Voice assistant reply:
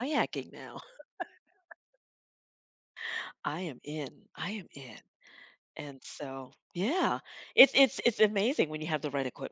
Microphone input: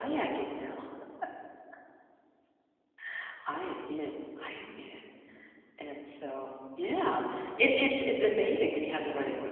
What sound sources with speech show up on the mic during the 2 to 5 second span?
echo only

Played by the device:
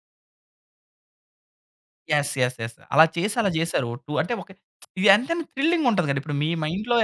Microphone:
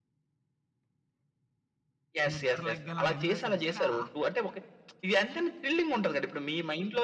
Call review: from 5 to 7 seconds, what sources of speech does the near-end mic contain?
echo only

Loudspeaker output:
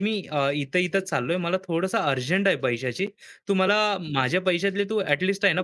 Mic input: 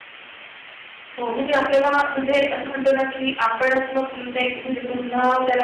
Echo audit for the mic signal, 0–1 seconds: neither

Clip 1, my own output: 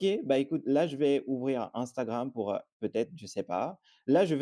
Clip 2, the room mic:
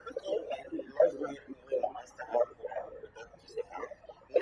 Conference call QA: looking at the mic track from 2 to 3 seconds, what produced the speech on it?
echo only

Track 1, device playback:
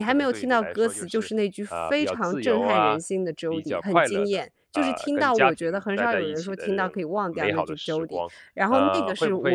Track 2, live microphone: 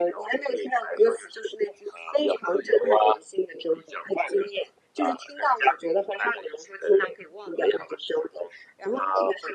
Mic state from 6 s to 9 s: echo only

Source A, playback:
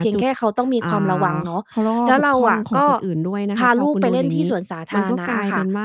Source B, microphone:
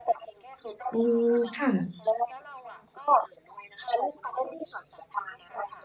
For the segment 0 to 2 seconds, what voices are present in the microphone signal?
both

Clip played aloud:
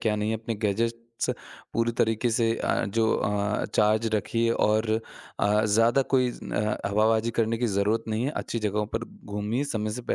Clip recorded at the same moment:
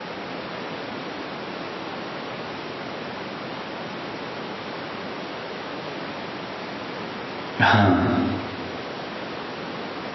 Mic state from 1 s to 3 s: neither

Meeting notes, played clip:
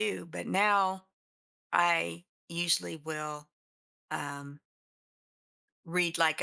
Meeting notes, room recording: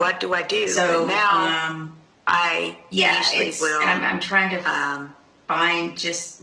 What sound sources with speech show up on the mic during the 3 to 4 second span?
both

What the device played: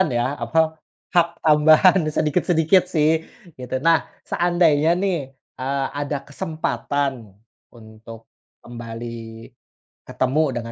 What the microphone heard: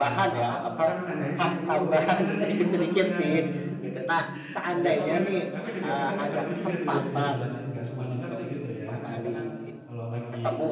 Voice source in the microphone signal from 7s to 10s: both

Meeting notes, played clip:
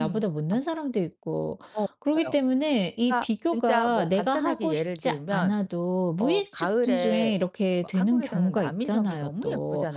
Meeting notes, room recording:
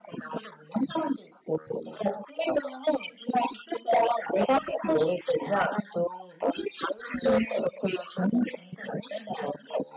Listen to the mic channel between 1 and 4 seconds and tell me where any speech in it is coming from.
echo only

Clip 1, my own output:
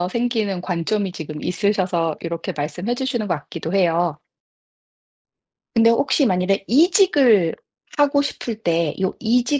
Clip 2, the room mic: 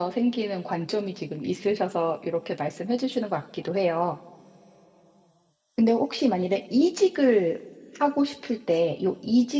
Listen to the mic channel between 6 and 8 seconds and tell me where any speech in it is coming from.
echo only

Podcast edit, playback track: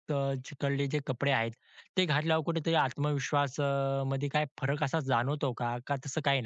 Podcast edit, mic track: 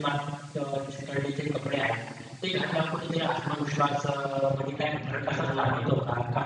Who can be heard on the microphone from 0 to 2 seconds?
echo only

